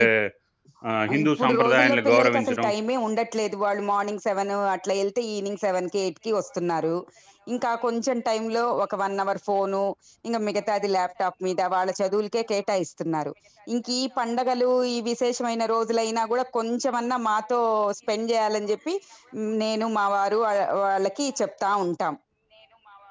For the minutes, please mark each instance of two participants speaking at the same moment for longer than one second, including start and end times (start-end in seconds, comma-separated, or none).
1.2-2.7